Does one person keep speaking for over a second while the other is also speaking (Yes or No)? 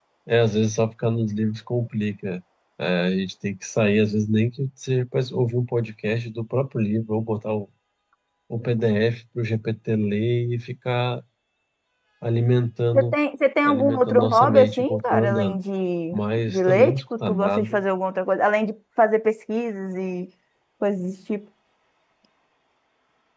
Yes